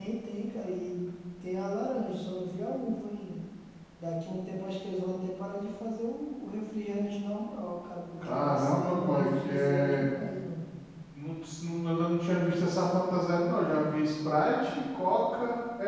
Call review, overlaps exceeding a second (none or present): present